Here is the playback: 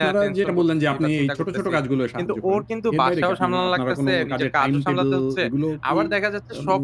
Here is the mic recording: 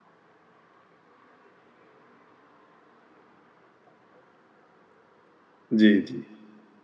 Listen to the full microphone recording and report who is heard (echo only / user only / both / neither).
user only